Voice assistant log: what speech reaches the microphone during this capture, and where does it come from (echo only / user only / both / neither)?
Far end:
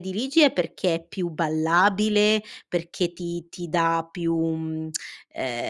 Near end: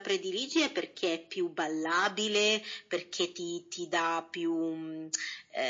echo only